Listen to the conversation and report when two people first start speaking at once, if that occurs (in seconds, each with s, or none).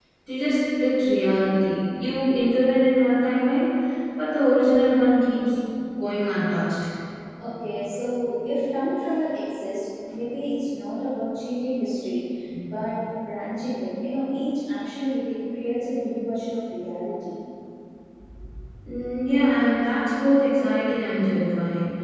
none